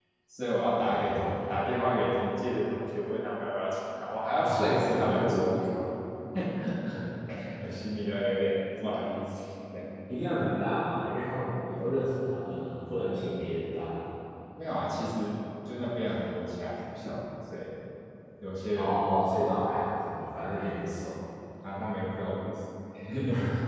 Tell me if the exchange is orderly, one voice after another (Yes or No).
No